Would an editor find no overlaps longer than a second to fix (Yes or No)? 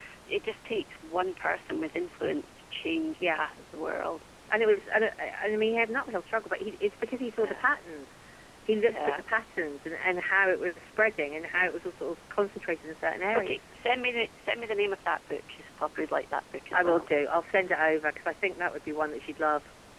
Yes